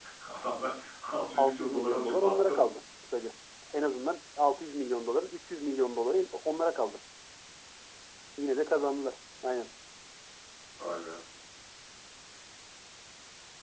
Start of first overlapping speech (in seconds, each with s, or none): 1.4 s